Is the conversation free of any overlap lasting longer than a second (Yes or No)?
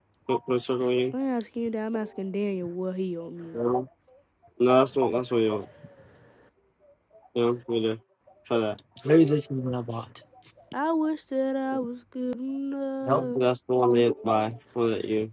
Yes